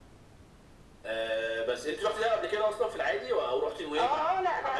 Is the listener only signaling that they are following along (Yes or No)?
No